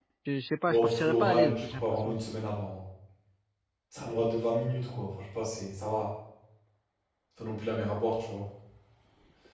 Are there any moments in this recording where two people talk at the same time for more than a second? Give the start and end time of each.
0.7-2.2

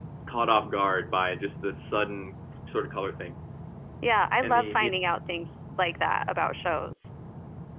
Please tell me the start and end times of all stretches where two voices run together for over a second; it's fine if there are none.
none

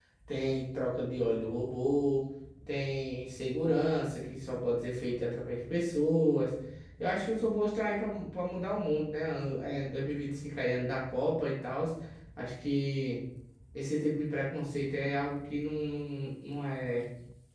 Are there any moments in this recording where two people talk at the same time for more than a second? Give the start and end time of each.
none

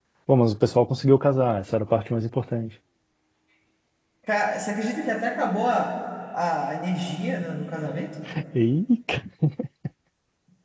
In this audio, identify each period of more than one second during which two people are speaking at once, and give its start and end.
none

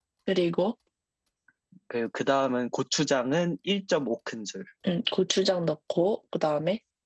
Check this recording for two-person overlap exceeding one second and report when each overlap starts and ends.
none

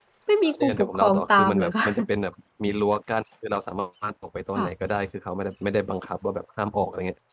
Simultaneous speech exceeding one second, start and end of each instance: 0.6-1.8

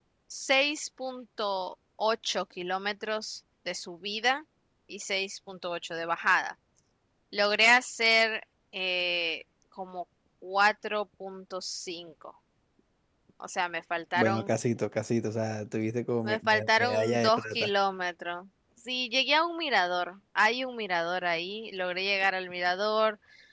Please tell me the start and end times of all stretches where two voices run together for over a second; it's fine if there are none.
16.2-17.7

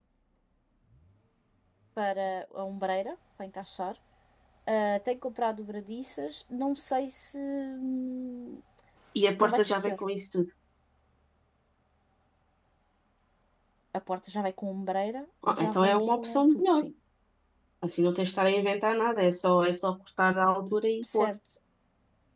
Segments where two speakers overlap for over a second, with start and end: 15.5-16.8

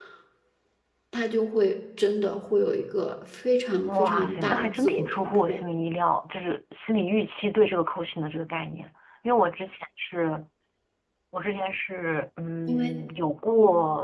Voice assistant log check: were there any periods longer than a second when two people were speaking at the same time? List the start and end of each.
3.9-5.6

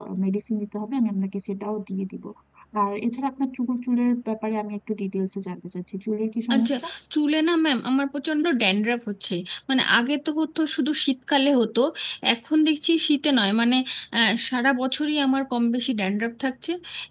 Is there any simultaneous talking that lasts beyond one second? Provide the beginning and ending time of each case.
none

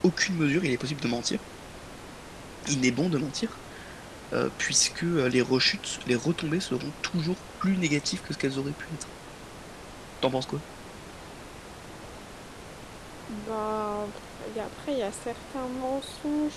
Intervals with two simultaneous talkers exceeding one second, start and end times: none

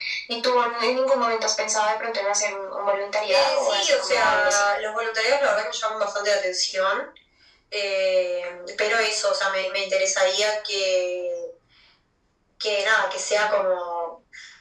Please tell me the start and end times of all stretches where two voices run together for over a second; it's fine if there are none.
3.3-4.6

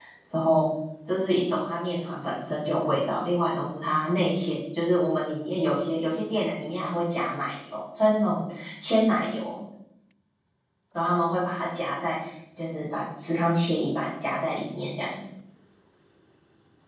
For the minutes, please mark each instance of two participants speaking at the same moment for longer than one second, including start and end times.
none

